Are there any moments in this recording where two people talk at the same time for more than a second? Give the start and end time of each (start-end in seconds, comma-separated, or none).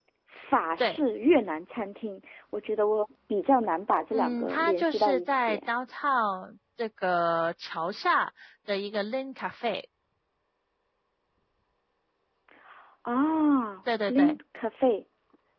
4.1-5.6